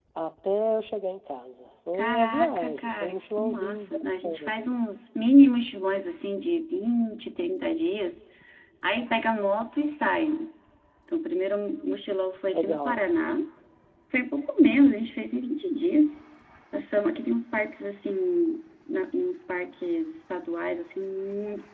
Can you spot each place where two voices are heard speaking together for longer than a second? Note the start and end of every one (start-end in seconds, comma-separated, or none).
1.9-4.8